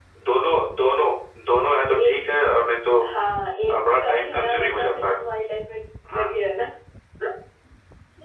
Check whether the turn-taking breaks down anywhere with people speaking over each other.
Yes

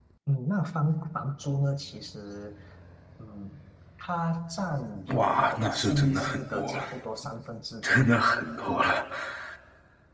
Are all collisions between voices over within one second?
No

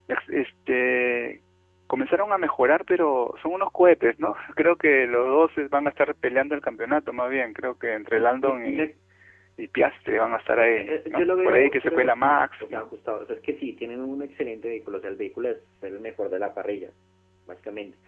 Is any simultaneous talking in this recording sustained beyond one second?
Yes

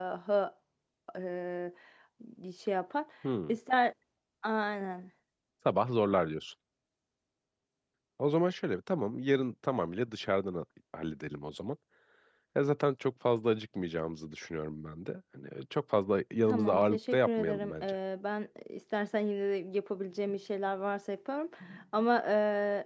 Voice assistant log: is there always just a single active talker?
No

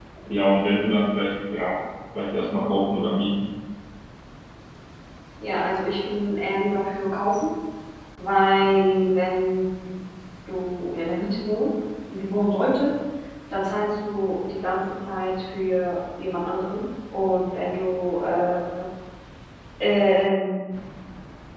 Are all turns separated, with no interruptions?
Yes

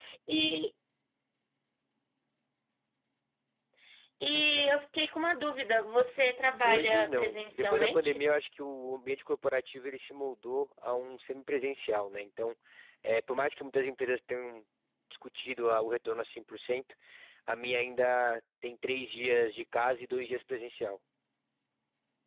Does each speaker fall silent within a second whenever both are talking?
No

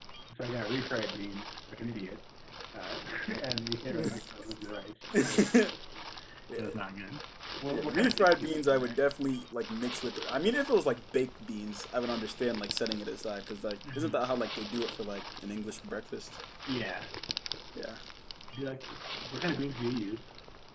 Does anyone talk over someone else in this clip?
Yes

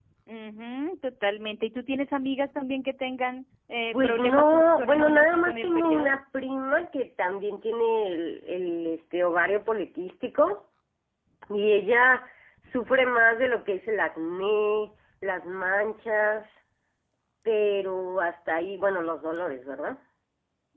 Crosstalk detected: Yes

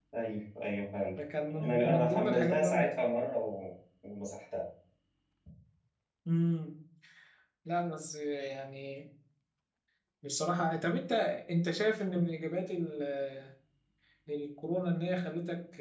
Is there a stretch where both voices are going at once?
Yes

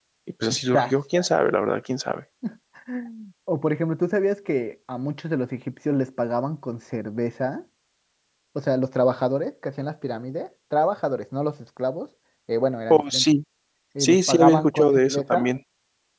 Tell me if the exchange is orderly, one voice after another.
No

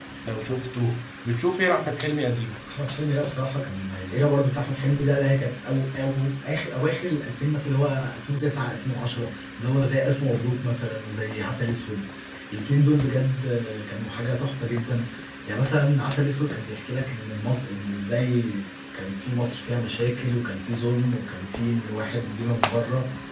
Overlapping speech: No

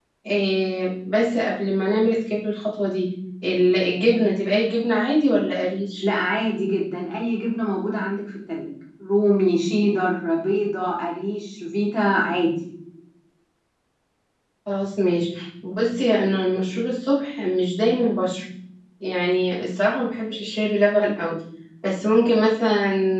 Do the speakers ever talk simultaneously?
No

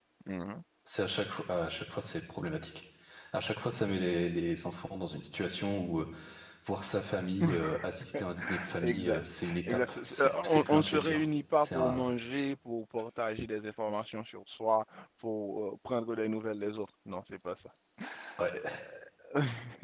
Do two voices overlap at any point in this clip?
Yes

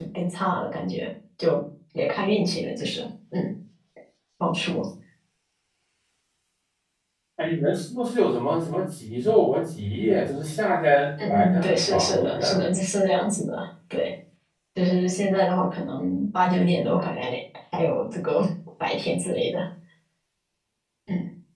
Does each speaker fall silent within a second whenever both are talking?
No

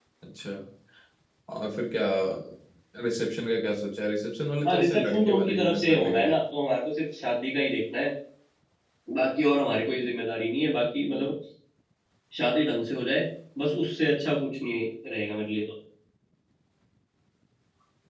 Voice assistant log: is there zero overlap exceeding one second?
No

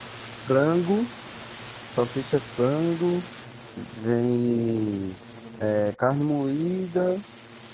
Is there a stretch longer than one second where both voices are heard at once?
No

